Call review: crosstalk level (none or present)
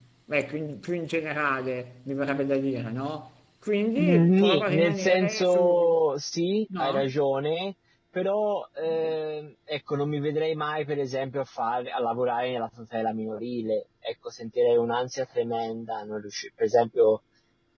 present